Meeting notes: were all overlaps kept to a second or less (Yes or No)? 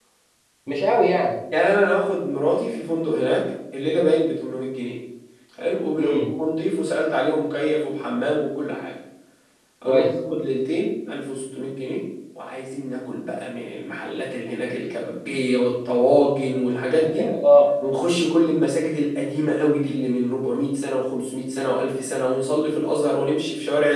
Yes